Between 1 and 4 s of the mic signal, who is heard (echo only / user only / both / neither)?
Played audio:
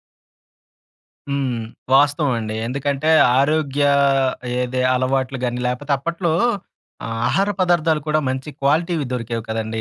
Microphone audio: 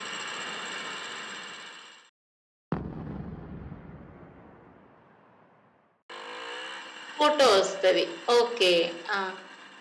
neither